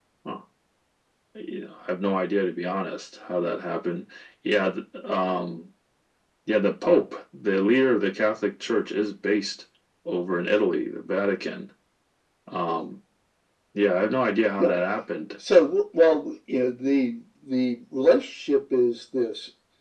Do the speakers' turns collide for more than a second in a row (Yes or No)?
No